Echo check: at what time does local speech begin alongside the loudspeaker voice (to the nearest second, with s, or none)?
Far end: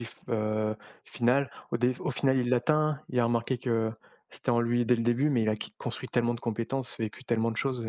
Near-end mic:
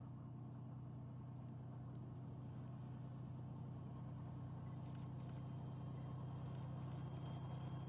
none